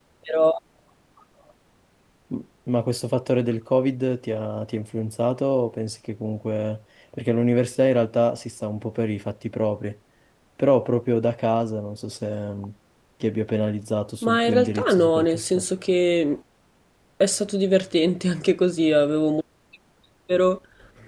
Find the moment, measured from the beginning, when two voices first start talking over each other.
14.2 s

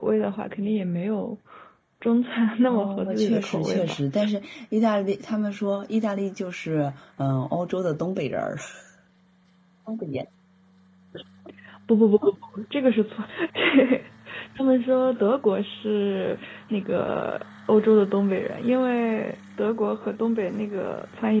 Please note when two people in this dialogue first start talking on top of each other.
2.7 s

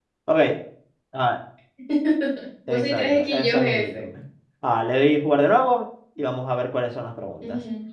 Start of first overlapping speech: 2.7 s

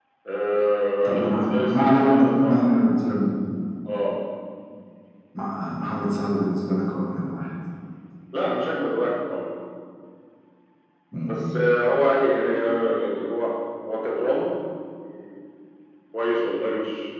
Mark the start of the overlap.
1.0 s

